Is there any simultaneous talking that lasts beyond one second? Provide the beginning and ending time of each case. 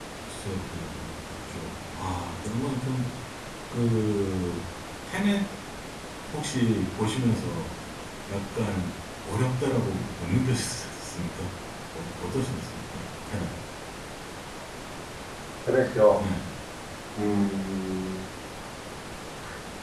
none

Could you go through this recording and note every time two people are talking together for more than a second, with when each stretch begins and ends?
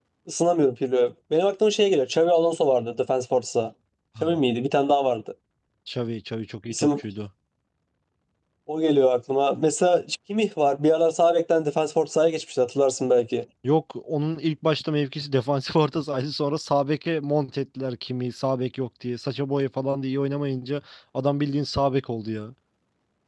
none

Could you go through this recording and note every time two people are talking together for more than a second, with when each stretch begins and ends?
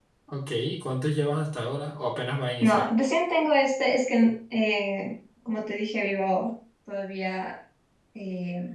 none

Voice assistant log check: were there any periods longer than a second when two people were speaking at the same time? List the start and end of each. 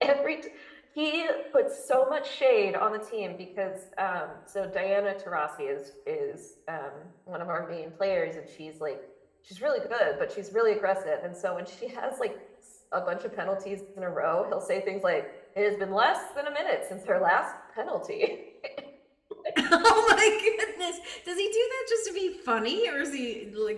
none

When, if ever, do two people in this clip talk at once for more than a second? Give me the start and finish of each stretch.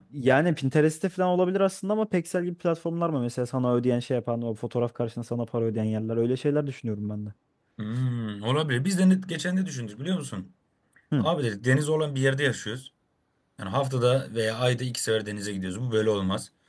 none

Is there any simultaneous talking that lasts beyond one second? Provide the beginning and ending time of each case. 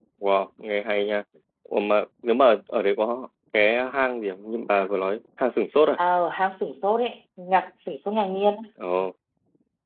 none

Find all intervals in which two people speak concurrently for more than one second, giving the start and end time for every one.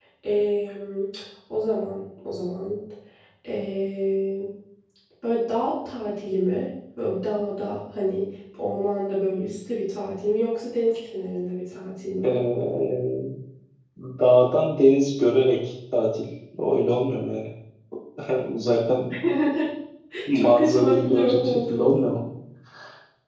20.3-22.1

